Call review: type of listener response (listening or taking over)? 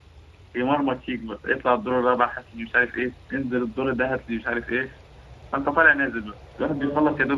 listening